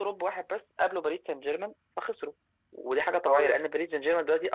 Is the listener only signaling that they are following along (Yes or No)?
Yes